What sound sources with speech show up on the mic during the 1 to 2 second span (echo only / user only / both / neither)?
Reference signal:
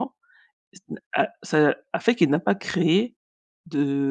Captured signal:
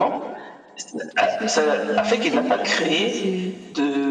both